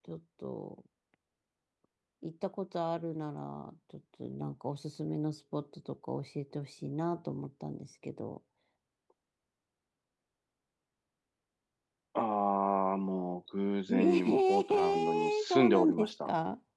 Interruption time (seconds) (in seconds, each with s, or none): 13.9 s